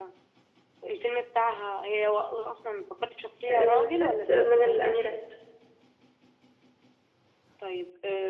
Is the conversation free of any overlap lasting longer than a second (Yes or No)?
No